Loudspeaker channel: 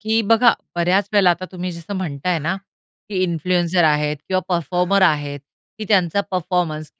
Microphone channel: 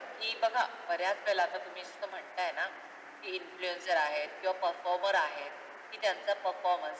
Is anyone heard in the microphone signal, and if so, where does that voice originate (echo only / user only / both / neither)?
echo only